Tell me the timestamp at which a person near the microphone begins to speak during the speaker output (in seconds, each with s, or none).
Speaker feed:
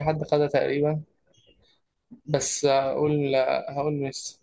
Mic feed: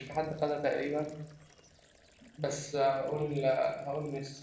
none